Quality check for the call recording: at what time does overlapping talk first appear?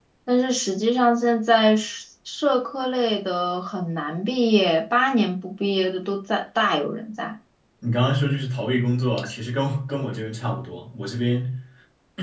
none

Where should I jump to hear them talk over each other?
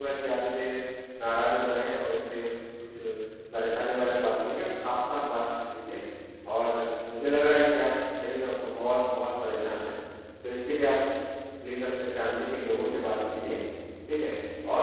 none

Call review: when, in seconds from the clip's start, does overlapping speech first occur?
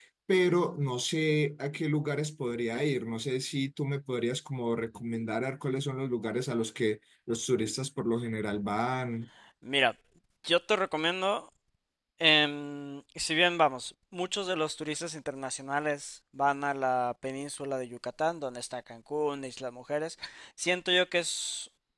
none

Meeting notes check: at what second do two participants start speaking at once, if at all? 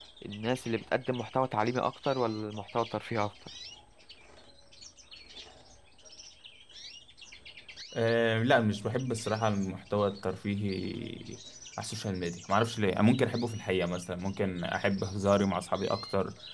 none

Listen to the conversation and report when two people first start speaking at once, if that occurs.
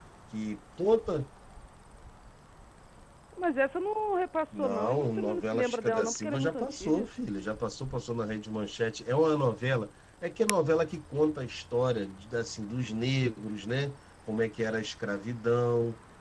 4.5 s

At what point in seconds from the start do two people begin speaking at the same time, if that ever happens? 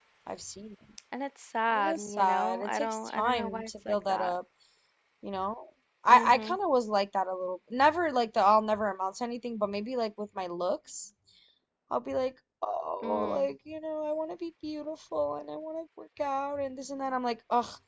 1.7 s

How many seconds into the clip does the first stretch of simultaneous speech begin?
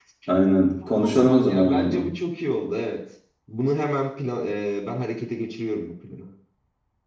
0.9 s

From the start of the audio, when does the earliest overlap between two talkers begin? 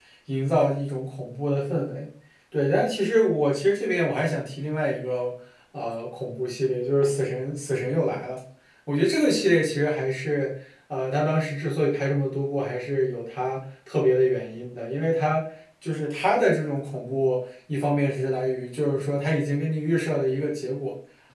none

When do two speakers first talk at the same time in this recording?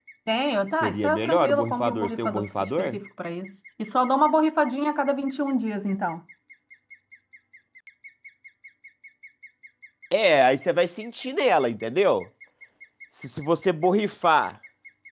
0.8 s

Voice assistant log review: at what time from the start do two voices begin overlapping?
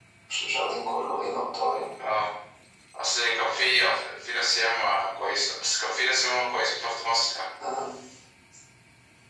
none

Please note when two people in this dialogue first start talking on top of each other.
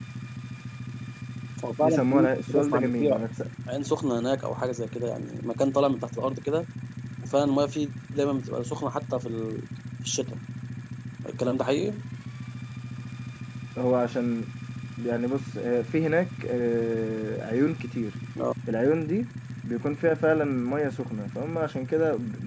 1.8 s

